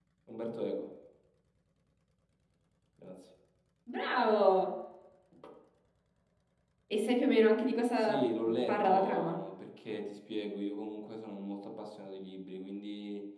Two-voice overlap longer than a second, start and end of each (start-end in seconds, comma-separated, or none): 8.0-9.4